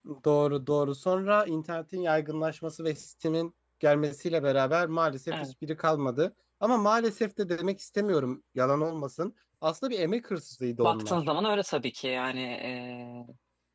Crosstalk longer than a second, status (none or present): none